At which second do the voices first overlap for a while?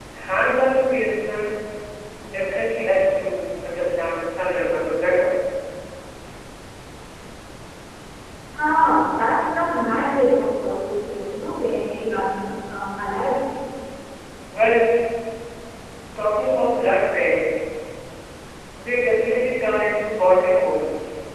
none

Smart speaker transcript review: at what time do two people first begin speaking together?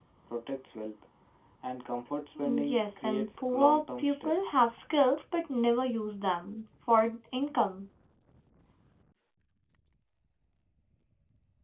2.4 s

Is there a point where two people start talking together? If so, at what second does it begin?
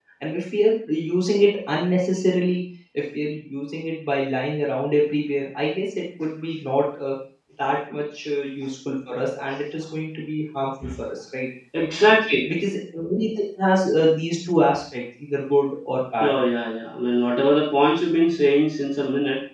none

